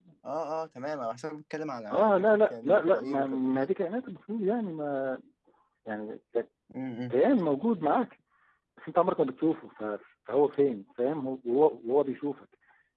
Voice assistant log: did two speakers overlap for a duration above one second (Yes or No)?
Yes